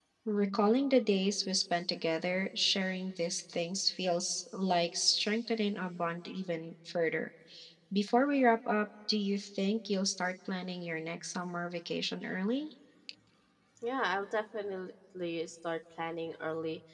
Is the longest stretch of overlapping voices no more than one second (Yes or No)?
Yes